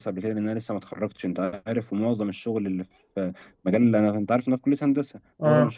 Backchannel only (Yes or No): Yes